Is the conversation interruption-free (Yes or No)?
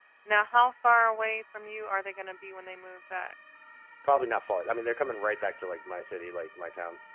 Yes